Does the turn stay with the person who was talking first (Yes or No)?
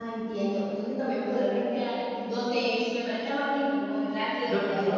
No